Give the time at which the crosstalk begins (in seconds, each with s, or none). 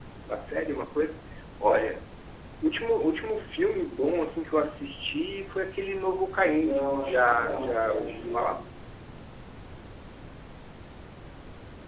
6.5 s